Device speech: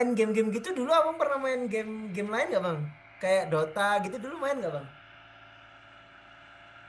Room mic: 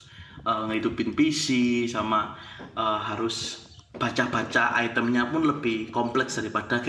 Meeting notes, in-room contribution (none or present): present